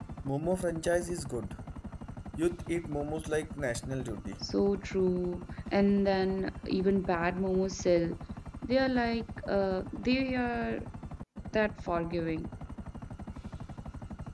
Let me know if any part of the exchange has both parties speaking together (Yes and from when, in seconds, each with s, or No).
No